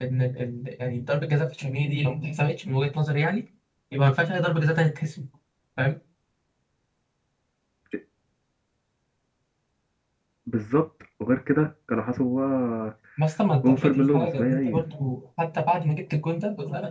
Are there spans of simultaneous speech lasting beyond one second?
Yes, from 13.6 s

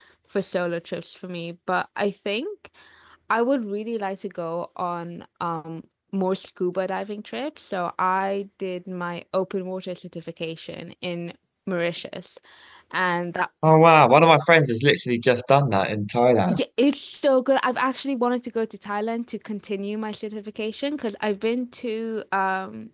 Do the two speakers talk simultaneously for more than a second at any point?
No

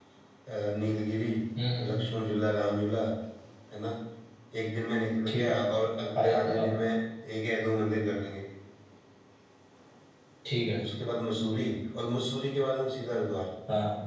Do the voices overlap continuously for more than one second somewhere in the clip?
No

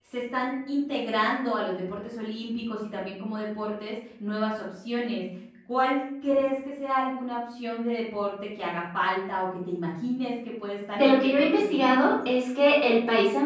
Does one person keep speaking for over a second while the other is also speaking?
Yes, from 10.9 s

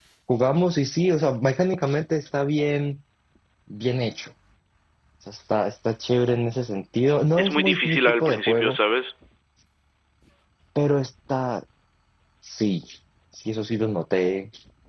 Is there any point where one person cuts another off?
Yes, from 7.4 s

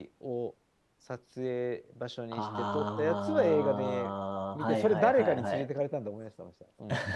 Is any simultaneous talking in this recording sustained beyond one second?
Yes, from 2.3 s

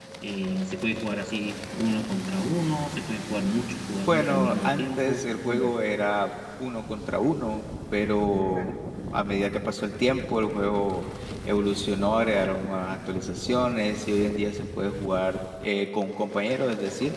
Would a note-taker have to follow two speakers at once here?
Yes, from 4.1 s

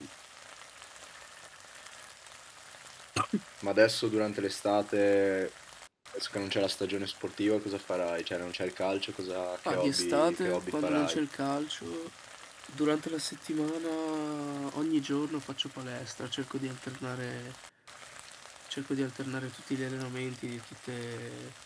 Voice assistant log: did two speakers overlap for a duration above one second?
Yes, from 9.7 s

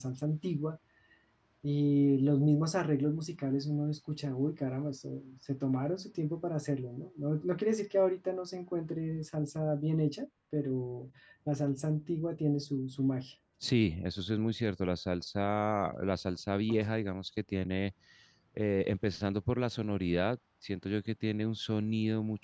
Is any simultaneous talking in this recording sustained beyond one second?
No

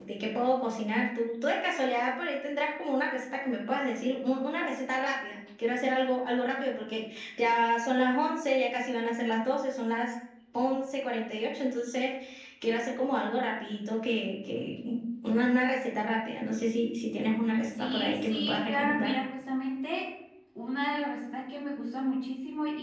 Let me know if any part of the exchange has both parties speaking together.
Yes, from 17.7 s

